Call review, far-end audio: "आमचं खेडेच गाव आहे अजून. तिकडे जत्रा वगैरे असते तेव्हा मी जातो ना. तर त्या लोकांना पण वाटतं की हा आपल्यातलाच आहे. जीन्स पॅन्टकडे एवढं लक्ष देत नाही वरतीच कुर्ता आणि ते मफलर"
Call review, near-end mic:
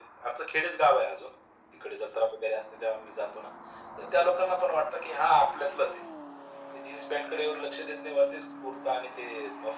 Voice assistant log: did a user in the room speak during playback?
No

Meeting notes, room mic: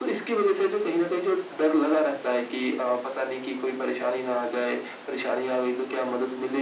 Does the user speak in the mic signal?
No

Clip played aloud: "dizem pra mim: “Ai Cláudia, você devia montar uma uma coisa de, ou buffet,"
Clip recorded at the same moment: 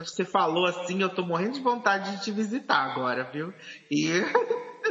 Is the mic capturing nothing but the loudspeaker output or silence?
No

